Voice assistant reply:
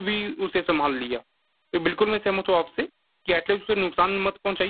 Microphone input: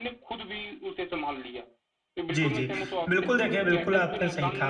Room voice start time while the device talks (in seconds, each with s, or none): 2.3 s